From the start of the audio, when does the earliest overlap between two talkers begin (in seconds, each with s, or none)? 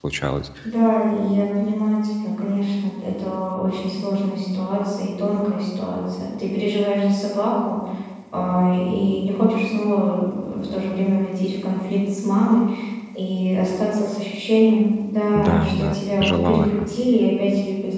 15.4 s